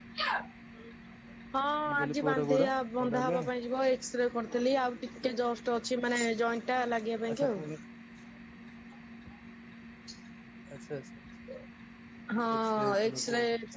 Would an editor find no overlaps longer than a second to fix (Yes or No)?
No